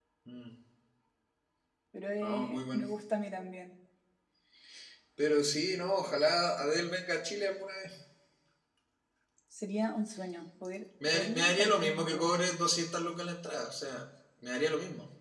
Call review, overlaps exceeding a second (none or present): present